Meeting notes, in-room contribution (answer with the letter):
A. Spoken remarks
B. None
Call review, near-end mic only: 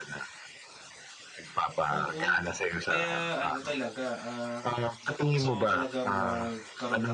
A